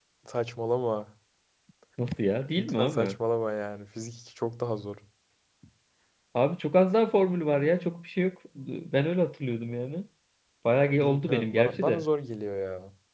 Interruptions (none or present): present